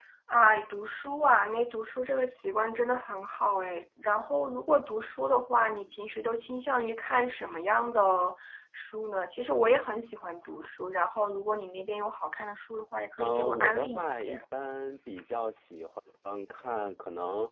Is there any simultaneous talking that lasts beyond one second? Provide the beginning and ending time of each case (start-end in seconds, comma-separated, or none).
13.2-14.4